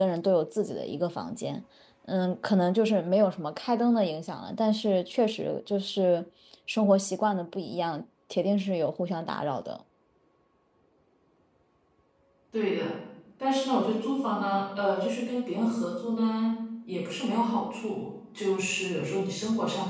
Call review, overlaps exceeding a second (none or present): none